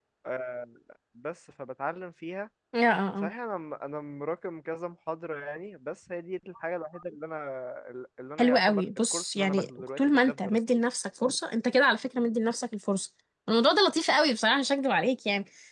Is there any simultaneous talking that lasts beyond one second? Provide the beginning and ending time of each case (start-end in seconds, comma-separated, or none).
8.4-10.8